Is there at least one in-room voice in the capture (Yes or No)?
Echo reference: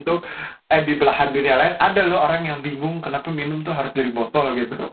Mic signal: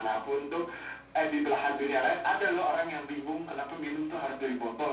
No